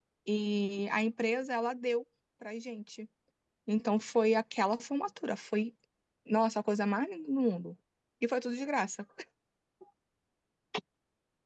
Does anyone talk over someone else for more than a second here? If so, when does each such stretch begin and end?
none

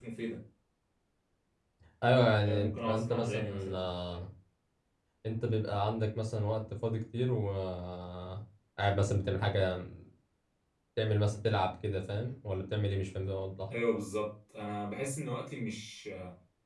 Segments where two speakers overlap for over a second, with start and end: 2.4-3.9

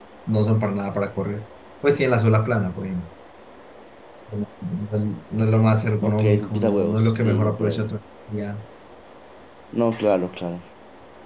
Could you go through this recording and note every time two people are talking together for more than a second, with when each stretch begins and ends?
6.0-7.9

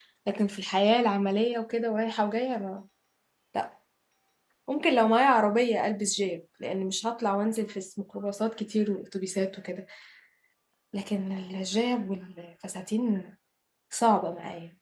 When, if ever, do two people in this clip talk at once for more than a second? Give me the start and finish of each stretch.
none

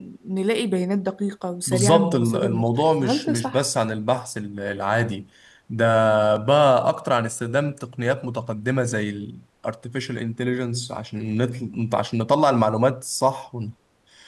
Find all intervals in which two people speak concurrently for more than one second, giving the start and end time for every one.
1.7-3.6

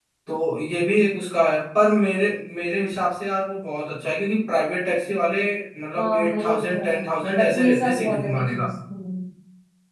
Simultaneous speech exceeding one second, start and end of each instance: 6.0-8.7

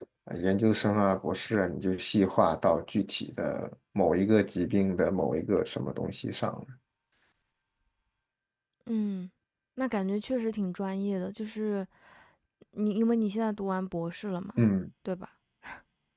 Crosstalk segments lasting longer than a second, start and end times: none

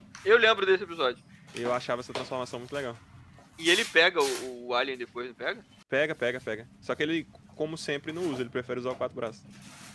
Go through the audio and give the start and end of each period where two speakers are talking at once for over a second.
none

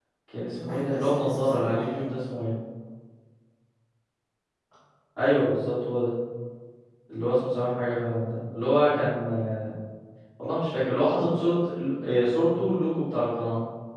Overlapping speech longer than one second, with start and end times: 0.6-2.1

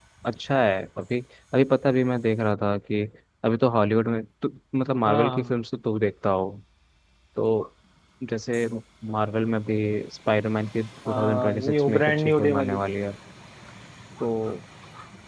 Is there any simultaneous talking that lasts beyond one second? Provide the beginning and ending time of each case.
11.1-12.8

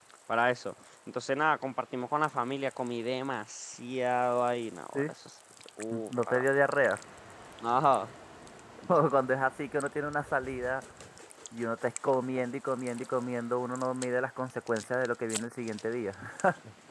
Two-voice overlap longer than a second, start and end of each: none

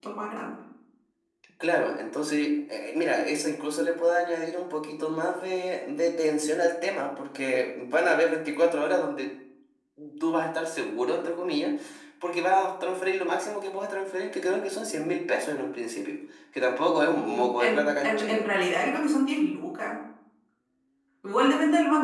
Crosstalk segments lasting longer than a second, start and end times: 17.2-18.5

